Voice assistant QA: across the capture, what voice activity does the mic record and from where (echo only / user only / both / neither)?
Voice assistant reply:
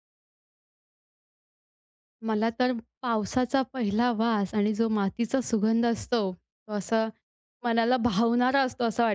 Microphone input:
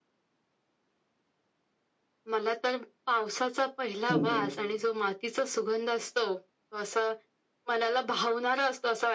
both